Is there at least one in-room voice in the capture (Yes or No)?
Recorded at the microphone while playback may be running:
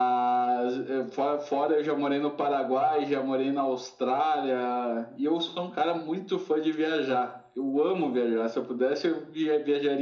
No